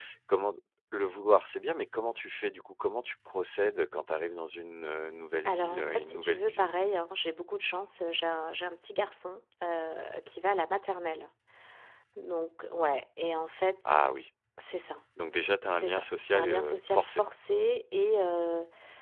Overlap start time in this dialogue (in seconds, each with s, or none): 5.4 s